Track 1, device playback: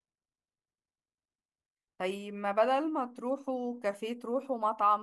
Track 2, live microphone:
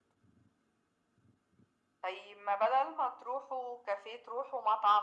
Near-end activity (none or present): none